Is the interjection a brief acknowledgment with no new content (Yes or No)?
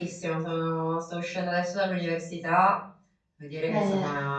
Yes